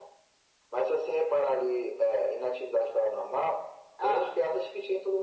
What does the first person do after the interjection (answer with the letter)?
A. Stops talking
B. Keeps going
B